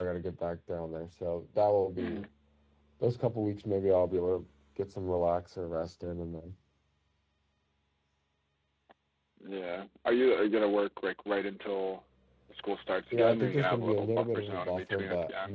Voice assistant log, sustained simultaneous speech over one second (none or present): present